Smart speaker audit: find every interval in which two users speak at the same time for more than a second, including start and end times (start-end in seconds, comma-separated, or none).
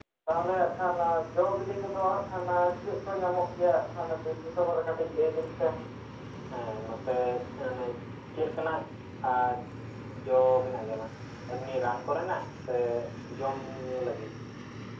none